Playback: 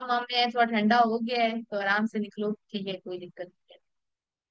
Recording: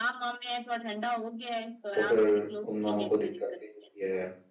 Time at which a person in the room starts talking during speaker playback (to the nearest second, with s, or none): 2 s